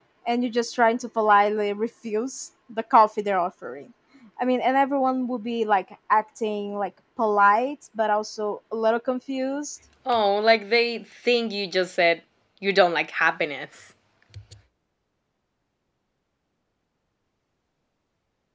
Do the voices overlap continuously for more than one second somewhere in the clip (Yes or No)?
No